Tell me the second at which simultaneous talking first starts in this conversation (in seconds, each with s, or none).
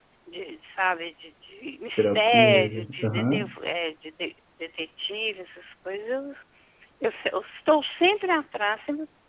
1.9 s